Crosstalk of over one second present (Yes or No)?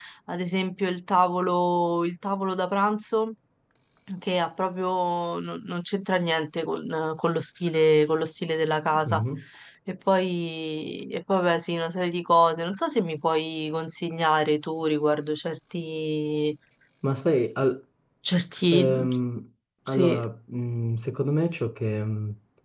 No